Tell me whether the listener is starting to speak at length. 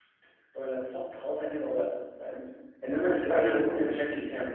No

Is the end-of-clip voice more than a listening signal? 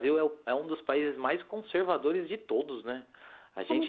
No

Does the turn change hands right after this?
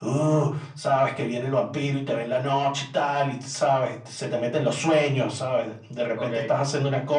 No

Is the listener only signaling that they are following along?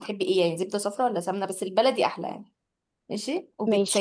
Yes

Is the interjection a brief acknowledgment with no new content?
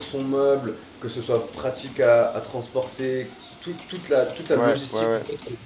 Yes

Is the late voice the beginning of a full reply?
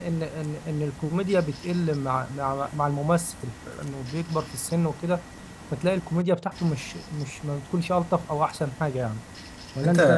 Yes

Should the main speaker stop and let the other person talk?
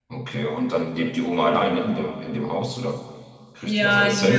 Yes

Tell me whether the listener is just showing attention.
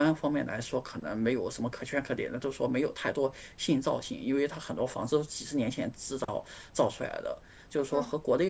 Yes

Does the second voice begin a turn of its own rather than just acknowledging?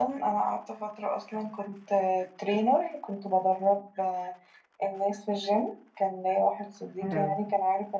No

